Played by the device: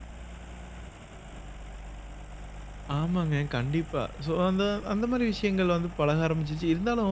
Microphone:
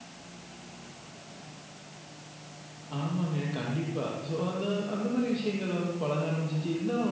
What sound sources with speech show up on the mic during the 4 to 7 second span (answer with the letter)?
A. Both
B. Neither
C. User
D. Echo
D